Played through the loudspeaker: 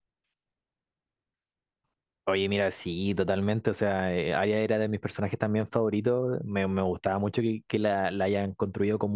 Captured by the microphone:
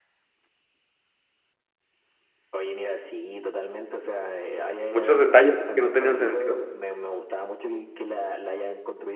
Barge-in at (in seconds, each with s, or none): 4.9 s